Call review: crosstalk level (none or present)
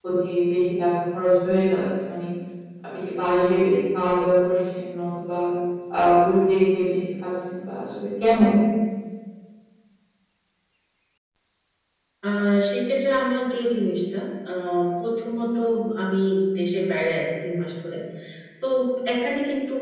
none